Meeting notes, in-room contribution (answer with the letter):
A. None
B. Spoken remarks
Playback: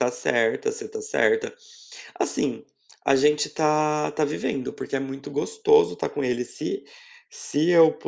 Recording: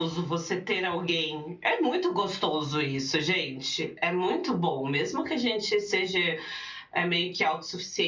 B